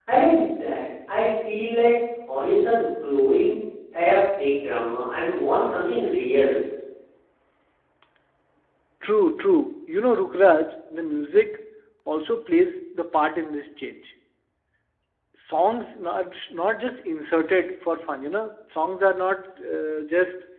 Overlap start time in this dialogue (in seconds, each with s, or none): none